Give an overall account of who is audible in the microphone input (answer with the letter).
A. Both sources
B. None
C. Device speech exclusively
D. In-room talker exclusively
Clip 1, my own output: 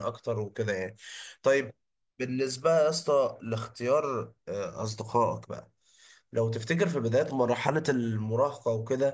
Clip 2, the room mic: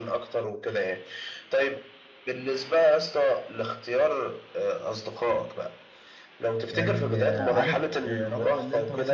A